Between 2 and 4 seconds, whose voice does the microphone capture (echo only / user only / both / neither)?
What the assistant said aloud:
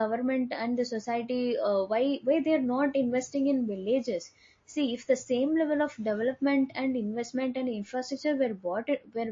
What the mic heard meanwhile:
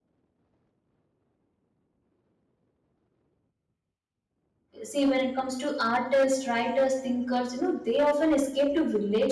neither